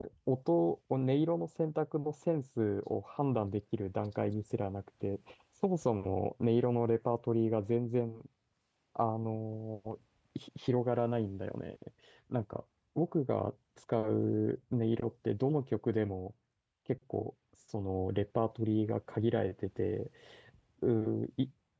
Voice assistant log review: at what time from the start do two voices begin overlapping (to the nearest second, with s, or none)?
none